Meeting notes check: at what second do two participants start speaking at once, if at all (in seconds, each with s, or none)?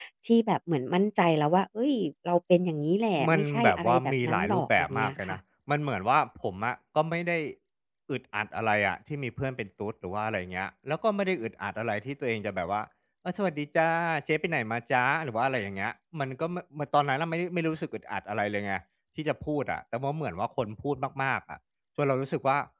3.2 s